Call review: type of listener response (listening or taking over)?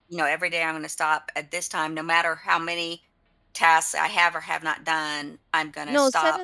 taking over